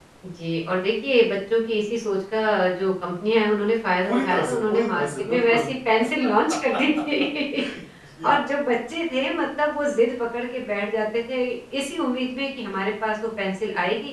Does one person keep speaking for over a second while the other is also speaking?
Yes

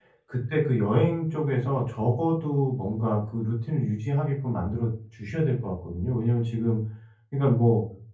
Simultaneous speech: No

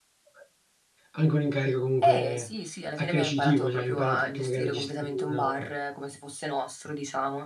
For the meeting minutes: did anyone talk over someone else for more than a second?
Yes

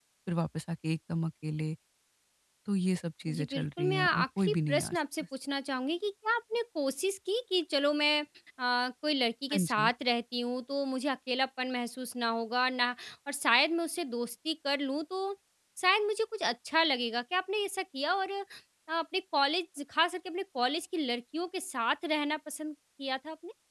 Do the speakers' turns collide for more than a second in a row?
Yes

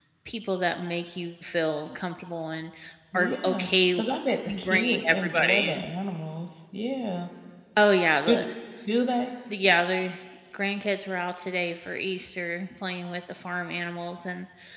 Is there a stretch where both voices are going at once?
Yes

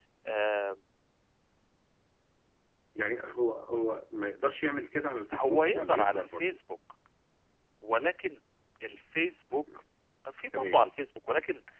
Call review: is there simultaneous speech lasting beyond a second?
Yes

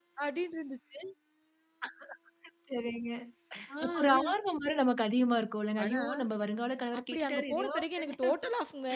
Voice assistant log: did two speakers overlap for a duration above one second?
Yes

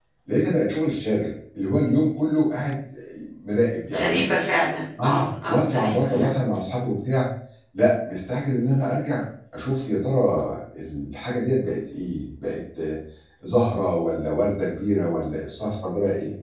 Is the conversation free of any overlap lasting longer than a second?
No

